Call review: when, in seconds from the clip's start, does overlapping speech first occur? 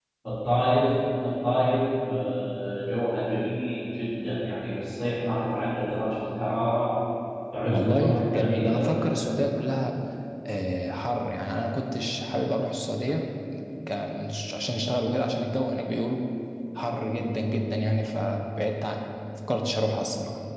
7.6 s

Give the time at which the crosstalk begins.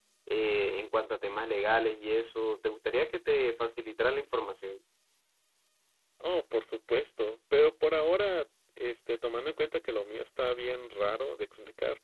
none

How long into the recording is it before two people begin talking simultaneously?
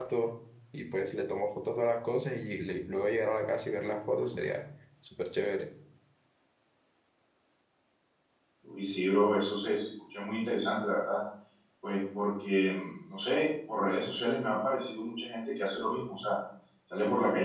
none

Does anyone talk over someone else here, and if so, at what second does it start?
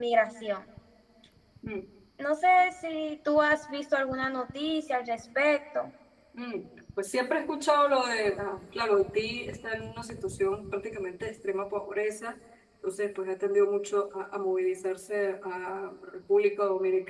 none

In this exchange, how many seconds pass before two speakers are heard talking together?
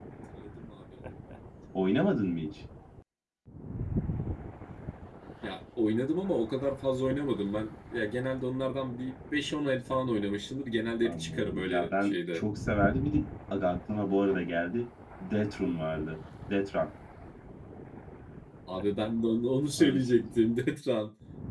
11.1 s

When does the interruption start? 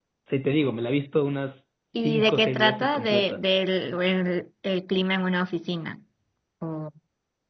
1.9 s

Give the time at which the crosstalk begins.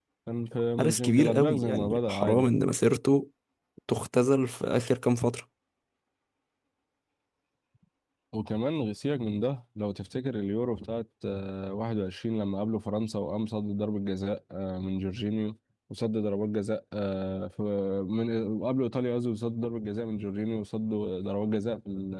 0.8 s

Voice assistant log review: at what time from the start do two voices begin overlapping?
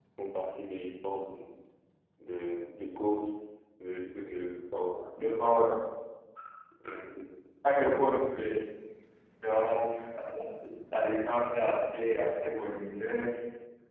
none

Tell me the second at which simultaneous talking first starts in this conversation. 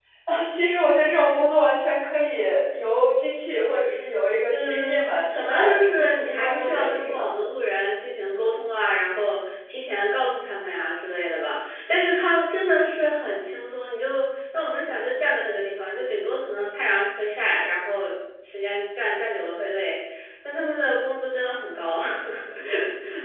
4.4 s

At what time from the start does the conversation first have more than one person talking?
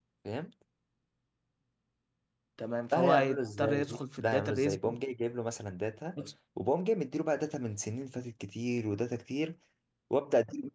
2.9 s

